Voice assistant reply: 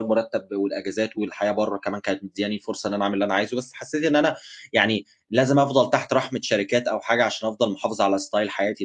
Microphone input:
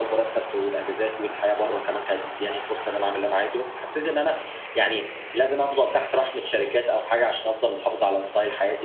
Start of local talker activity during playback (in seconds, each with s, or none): none